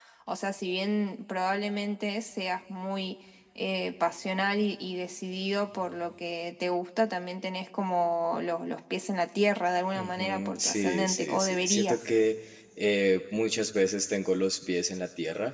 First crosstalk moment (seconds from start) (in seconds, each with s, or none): 9.9 s